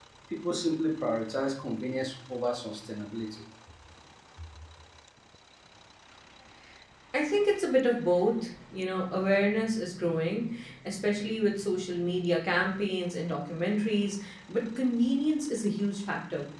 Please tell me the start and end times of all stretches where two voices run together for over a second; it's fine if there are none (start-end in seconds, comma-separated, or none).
none